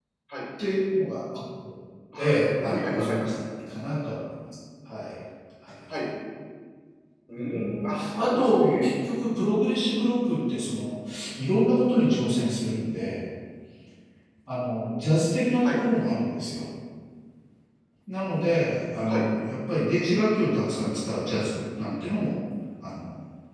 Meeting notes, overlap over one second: present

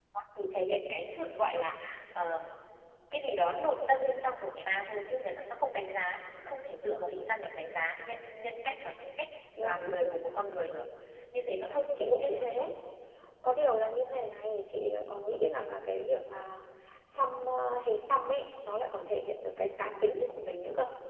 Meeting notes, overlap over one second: present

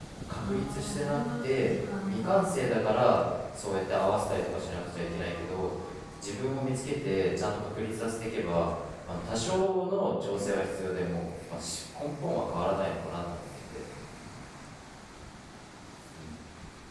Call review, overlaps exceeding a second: present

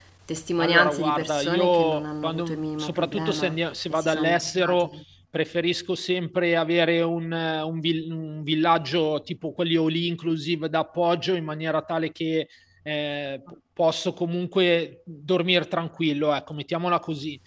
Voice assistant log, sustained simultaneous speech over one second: present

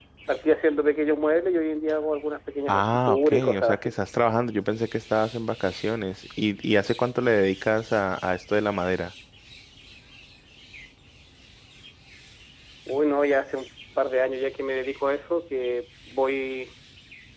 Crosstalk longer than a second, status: present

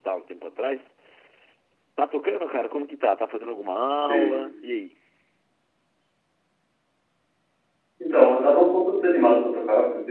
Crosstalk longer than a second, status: none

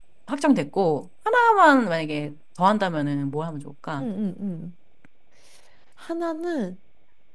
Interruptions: none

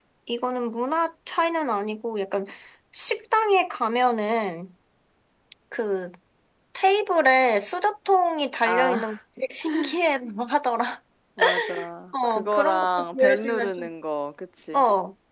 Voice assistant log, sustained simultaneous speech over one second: present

